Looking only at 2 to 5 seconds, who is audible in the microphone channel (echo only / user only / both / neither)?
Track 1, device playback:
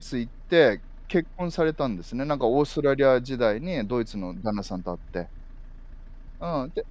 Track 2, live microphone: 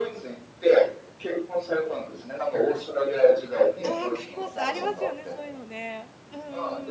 both